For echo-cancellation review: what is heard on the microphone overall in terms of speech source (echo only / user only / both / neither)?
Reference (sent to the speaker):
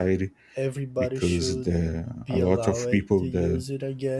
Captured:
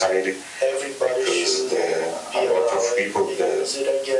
echo only